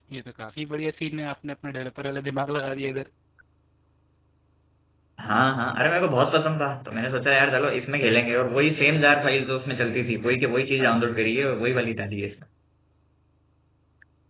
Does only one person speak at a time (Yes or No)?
Yes